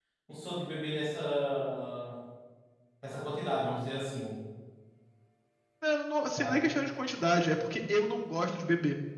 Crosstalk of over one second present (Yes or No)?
No